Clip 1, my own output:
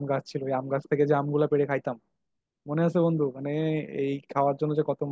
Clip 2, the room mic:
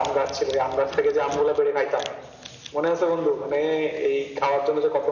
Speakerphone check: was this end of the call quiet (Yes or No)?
Yes